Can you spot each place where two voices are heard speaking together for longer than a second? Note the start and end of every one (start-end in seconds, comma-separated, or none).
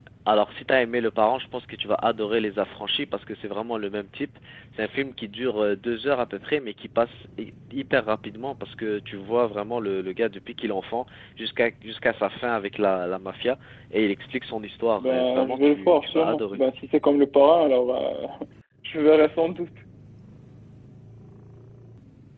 15.0-16.6